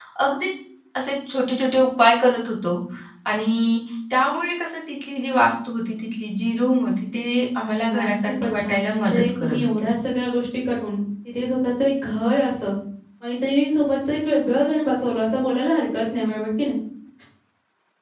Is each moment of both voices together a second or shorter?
No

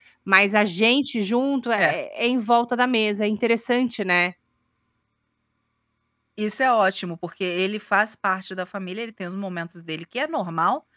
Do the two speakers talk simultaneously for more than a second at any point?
No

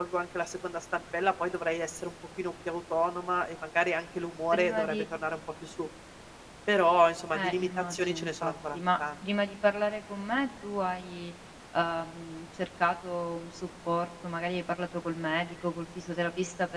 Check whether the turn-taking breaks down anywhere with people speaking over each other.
Yes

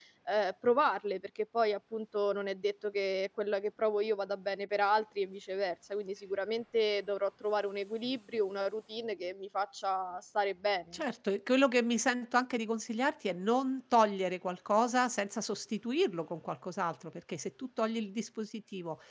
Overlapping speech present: No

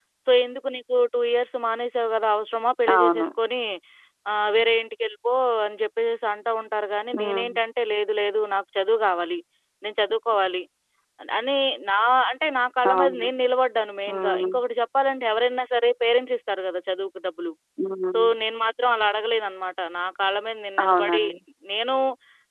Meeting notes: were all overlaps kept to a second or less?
Yes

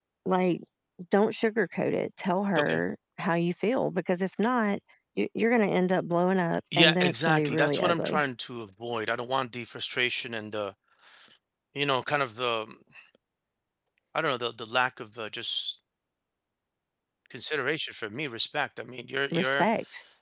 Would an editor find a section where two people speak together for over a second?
Yes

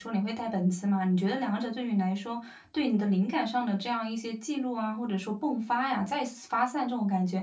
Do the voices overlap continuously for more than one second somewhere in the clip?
No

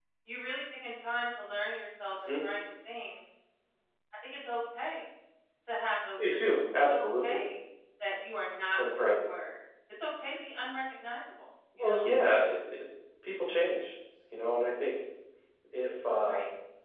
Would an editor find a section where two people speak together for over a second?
Yes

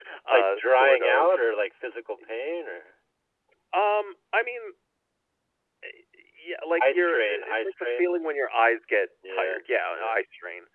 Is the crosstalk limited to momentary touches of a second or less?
No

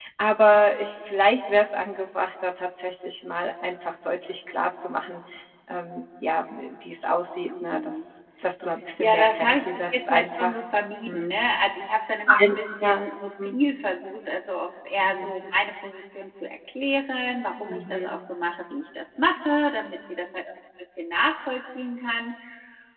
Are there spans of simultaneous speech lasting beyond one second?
Yes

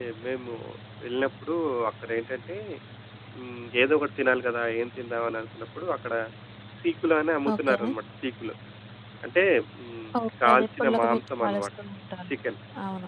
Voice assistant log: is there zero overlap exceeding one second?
No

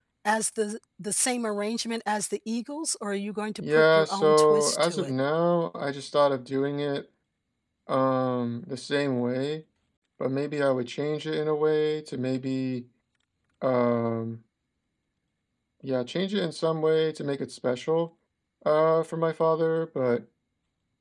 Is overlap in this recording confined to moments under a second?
No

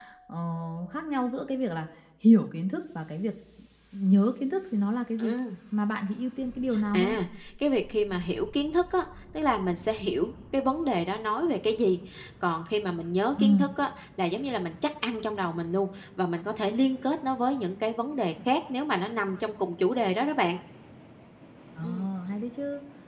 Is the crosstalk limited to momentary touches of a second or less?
Yes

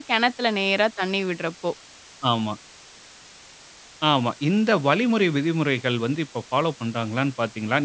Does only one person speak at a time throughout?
Yes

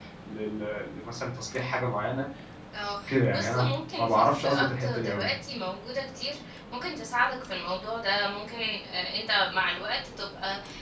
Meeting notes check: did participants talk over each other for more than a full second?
Yes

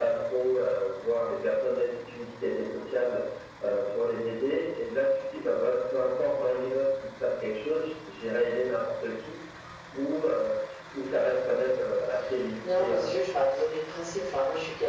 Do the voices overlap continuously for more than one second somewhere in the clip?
No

